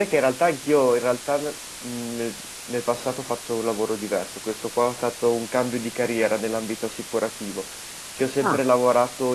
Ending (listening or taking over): listening